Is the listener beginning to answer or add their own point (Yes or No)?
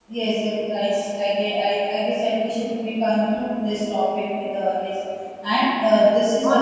Yes